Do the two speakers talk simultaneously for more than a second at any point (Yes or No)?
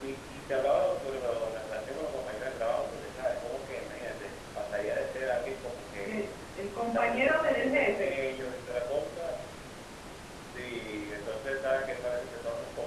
Yes